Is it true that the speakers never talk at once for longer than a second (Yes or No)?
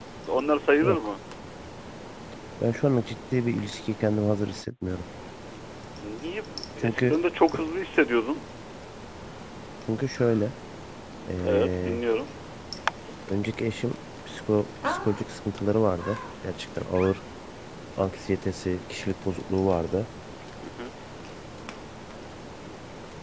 Yes